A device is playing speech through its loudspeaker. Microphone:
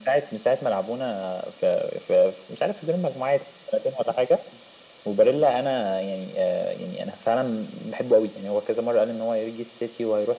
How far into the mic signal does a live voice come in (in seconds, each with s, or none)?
none